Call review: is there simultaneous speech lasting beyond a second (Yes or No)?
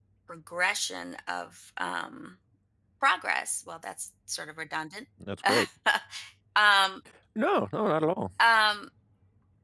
No